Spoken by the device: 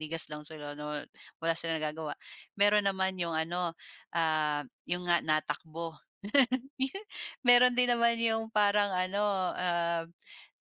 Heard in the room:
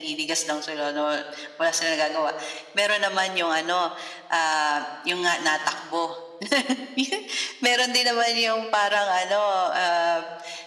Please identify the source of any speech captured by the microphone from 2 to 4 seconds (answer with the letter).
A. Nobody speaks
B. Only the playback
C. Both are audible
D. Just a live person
B